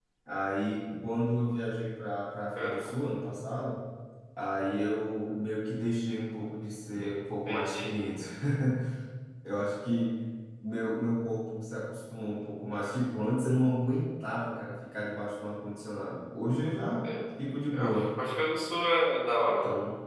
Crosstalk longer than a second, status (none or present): none